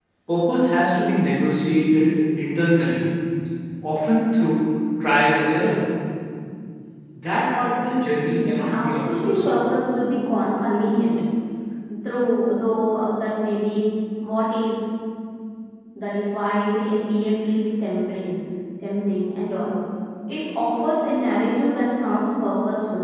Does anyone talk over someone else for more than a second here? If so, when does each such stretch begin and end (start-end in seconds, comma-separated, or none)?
8.3-9.5